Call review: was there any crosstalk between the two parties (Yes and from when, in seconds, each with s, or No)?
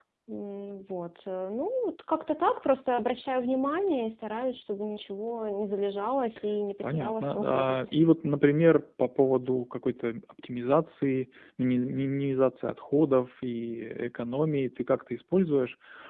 Yes, from 6.8 s